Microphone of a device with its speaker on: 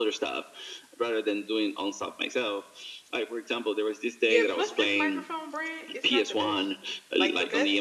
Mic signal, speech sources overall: both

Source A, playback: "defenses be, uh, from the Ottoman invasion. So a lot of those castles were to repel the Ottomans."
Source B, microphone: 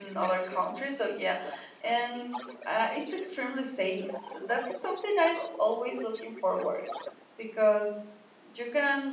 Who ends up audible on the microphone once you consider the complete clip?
both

